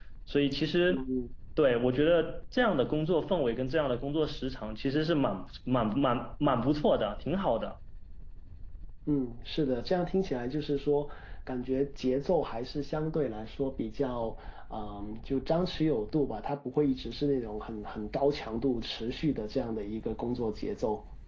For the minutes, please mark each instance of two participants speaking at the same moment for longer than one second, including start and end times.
none

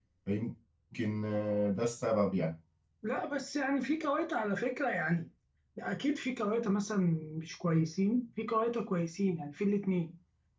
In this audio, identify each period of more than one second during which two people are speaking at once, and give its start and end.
none

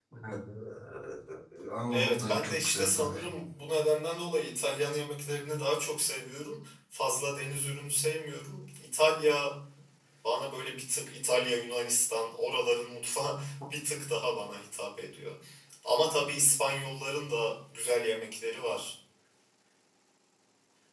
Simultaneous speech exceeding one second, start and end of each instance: 1.9-3.1

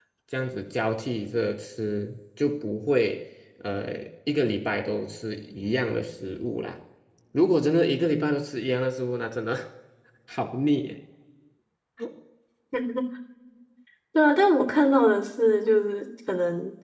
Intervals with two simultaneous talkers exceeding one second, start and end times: none

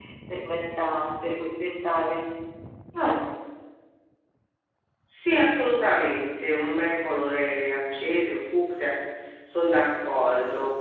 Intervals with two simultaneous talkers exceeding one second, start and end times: none

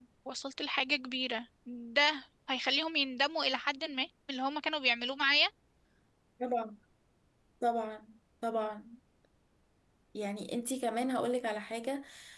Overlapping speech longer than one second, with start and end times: none

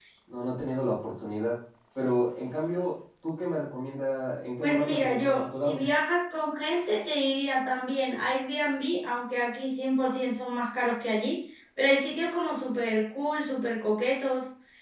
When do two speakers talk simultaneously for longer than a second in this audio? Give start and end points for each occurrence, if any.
4.6-5.8

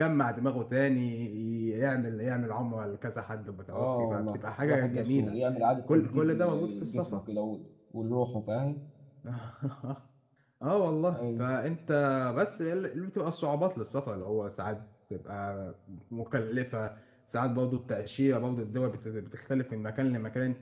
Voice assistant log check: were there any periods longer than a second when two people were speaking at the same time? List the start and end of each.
3.7-5.4, 5.9-7.2

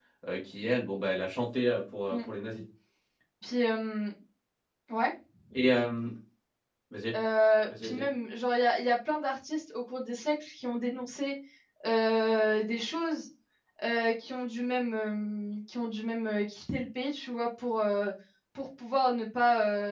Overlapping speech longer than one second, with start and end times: none

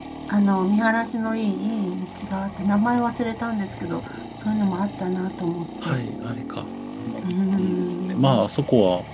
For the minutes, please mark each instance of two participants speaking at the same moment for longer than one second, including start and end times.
7.2-8.5

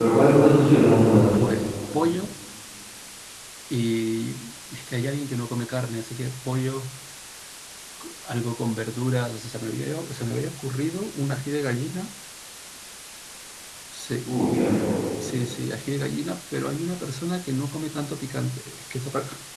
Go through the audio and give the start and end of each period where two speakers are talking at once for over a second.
none

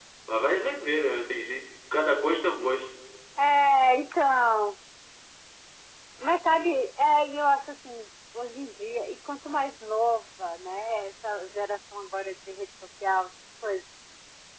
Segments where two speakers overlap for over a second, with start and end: none

